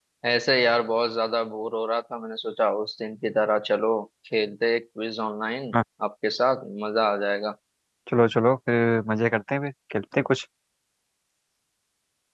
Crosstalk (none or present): none